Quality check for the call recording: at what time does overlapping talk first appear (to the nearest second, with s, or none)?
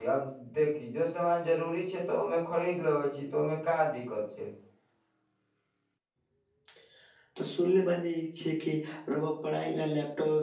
none